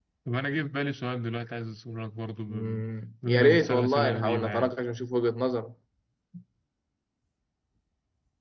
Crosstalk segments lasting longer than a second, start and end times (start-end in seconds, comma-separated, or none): 3.3-4.7